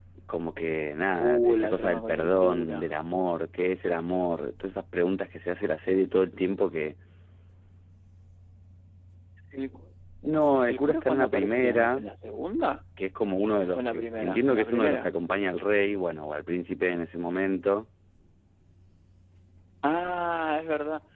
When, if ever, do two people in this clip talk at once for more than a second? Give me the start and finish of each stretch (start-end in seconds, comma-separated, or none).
1.2-2.9, 10.7-12.1, 13.8-15.1